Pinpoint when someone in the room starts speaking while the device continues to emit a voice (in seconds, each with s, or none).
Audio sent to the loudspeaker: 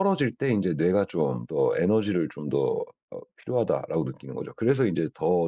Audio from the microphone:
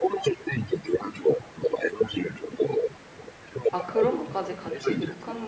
3.7 s